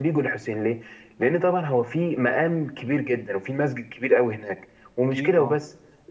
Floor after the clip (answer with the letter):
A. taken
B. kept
B